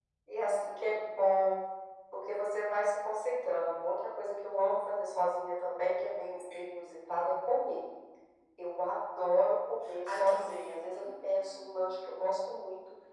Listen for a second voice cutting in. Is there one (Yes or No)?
Yes